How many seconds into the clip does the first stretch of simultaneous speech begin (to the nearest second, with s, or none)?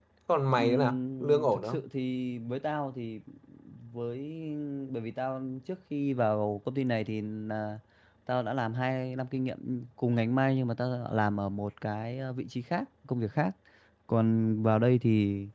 1 s